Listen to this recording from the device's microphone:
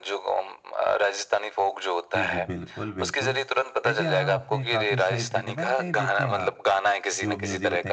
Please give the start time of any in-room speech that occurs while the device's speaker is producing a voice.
2.2 s

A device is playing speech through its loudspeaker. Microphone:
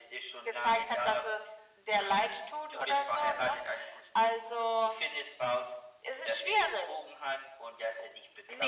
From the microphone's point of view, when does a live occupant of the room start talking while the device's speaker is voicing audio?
none

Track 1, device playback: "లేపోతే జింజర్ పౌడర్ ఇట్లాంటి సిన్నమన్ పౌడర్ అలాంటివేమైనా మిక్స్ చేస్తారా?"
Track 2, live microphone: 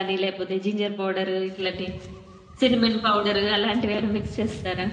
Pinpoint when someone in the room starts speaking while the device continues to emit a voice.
none

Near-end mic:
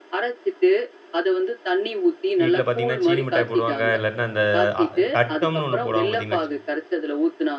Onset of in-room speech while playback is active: 2.4 s

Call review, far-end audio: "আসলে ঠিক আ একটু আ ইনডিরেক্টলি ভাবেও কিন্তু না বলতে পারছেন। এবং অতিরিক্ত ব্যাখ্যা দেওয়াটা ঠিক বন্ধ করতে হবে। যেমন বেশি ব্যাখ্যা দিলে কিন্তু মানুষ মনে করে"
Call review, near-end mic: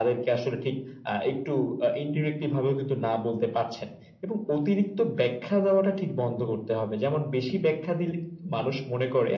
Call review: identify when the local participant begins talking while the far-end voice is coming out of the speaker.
none

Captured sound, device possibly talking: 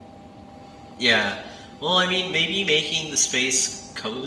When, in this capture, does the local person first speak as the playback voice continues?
1.0 s

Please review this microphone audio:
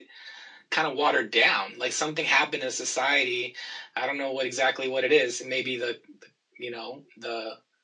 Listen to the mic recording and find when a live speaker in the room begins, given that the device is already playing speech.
none

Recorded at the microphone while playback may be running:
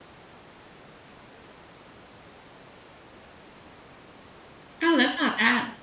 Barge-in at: 4.8 s

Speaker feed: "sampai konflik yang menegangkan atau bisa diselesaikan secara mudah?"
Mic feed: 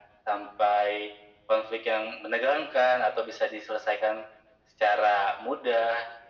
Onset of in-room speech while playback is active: none

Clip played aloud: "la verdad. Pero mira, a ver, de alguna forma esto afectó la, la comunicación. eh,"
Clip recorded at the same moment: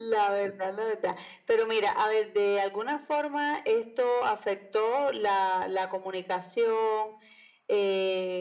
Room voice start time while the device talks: none

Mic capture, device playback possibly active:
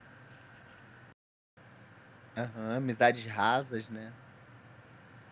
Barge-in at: 2.4 s

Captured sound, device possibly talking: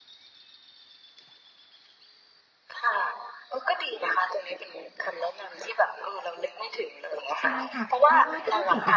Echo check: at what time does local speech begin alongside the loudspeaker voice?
7.5 s

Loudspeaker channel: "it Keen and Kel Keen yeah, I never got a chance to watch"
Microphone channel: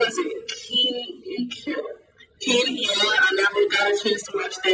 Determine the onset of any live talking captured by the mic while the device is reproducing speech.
none

